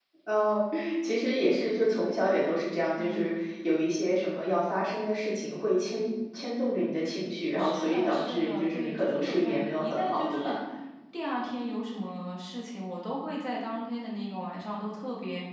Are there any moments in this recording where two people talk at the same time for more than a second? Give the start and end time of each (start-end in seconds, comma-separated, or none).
7.6-10.6